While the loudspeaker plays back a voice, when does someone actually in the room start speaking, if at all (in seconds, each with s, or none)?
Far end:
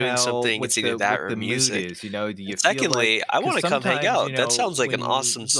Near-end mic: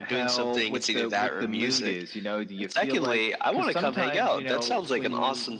none